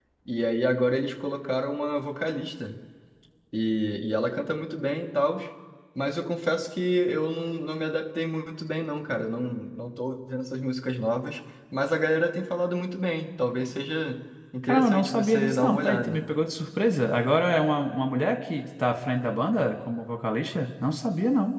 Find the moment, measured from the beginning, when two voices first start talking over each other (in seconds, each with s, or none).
14.6 s